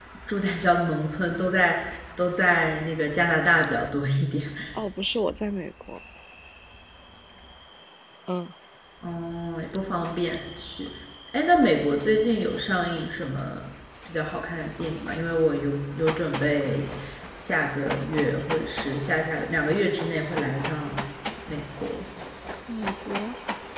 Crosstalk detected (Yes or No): No